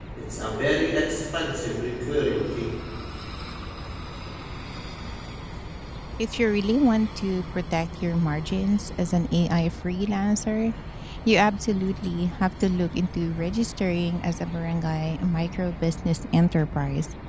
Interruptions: none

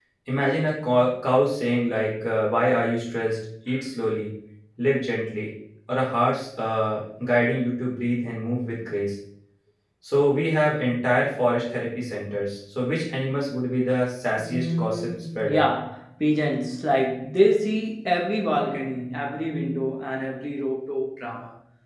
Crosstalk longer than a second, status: present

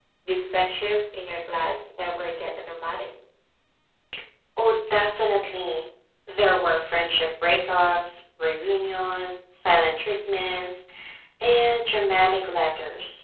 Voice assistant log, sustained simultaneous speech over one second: none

